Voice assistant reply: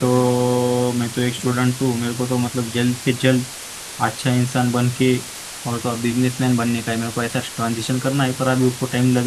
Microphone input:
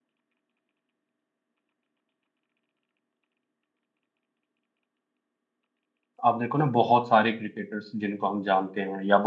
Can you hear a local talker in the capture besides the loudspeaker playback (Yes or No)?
Yes